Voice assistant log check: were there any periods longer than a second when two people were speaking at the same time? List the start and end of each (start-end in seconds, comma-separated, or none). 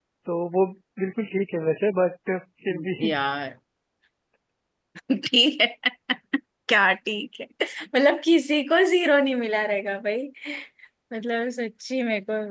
none